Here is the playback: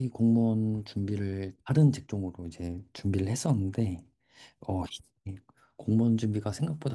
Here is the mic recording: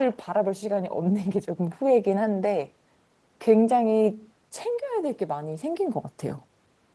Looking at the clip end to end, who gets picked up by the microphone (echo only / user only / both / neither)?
user only